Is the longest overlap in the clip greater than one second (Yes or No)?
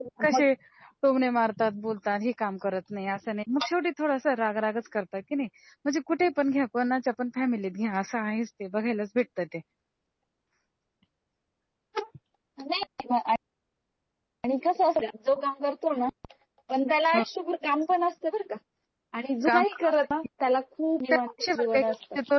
No